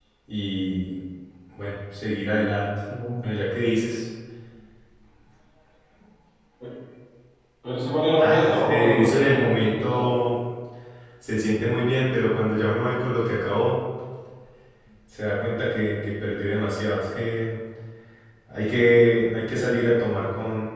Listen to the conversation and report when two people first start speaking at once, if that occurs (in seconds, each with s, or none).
8.2 s